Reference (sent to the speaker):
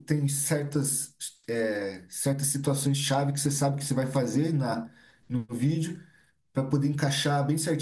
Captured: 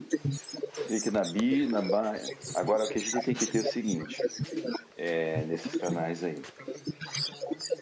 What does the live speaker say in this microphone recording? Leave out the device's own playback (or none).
clique na bi, na ba. Agora o que a gente tem que ter é o seguinte, é, nesses canais aí,